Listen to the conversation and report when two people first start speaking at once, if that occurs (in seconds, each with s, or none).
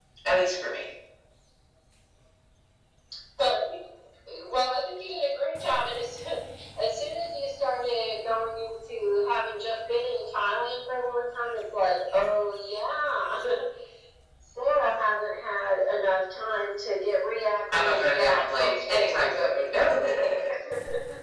17.7 s